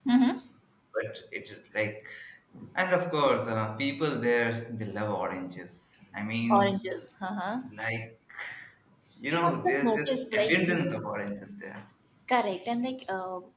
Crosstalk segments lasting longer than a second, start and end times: 9.3-10.9

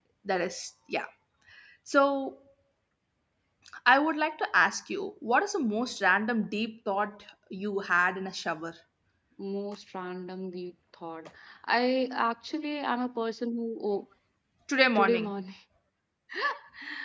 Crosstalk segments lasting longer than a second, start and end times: none

